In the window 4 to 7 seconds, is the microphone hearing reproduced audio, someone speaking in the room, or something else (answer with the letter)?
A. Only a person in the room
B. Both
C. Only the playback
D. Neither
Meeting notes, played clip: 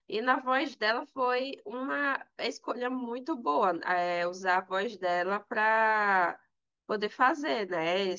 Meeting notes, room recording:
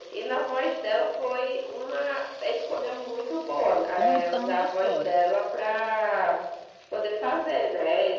B